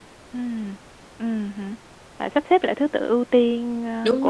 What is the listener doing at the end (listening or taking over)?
taking over